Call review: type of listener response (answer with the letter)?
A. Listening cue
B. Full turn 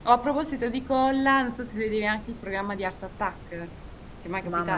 B